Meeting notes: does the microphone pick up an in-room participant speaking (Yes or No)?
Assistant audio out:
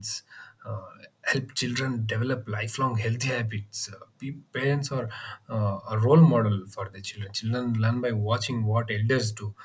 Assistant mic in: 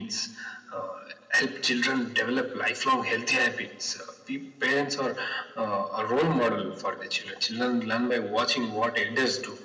No